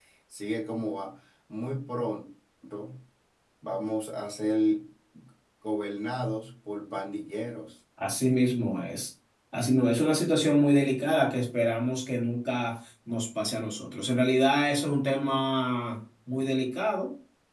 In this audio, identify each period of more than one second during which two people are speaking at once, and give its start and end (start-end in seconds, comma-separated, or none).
none